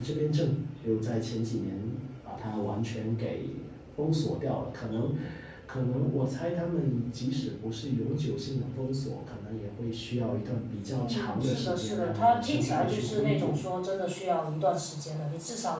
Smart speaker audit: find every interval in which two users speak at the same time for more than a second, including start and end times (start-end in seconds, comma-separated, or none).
11.0-13.6